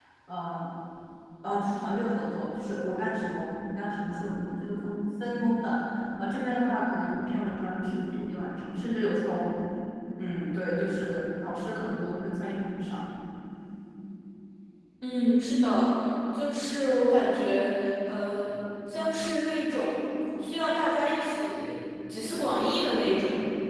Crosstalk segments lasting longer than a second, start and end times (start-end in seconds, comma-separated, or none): none